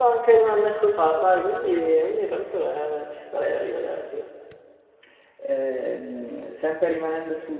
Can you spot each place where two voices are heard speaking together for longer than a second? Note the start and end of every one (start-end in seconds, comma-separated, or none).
none